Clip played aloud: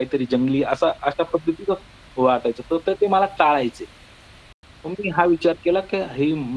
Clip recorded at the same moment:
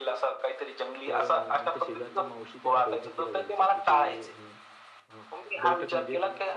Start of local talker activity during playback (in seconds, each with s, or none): 1.1 s